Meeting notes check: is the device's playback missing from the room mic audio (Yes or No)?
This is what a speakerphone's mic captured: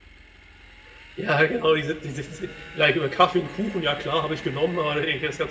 Yes